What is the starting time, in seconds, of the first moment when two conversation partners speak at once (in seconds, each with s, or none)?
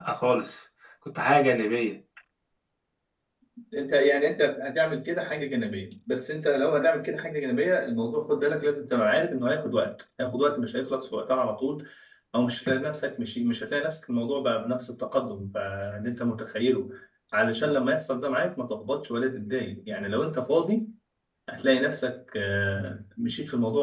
none